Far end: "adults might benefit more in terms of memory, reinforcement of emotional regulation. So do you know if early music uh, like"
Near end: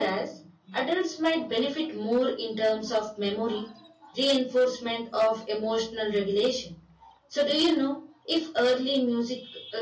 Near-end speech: none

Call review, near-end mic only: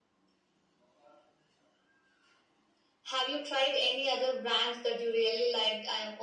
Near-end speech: none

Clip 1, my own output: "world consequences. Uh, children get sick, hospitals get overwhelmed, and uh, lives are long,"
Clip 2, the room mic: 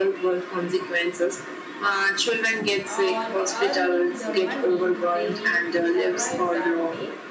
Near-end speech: present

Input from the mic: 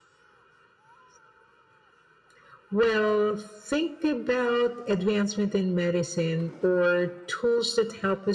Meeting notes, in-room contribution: none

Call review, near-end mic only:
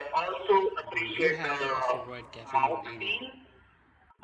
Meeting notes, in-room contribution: present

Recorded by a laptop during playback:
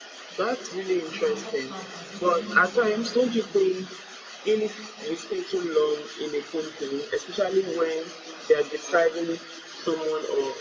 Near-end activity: present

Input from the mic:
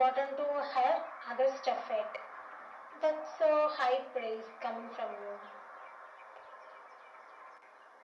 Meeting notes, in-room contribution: none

